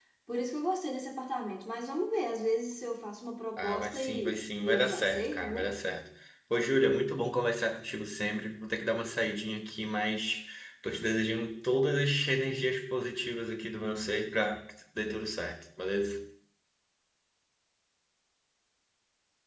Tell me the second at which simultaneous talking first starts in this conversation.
4 s

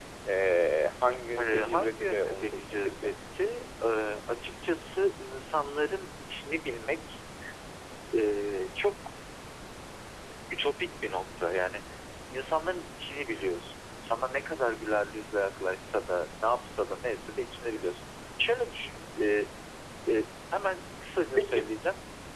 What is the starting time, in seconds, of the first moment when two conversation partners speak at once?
1 s

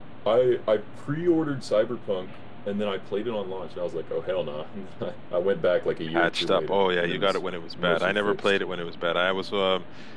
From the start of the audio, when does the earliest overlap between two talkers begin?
6 s

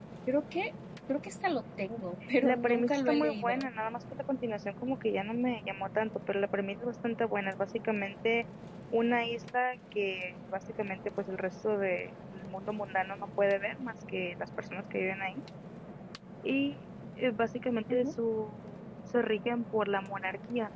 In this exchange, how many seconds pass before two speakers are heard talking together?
2 s

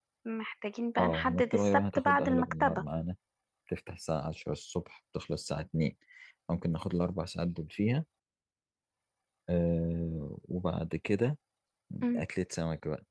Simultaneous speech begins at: 1 s

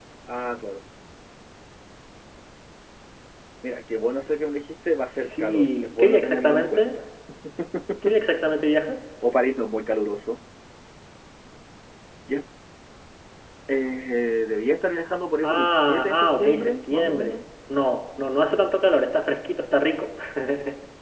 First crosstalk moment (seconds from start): 5 s

